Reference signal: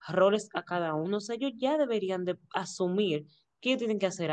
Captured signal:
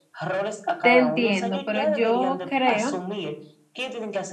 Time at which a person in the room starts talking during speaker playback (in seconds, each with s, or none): 0.8 s